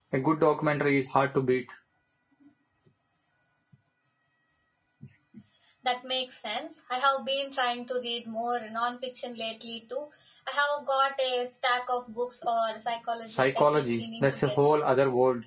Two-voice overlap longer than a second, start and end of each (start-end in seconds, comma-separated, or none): 13.3-14.6